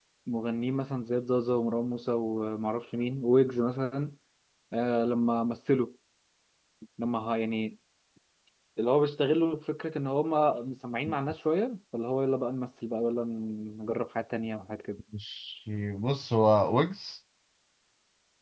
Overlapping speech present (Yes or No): No